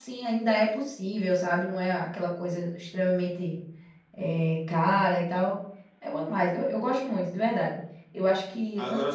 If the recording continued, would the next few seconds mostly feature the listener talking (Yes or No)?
No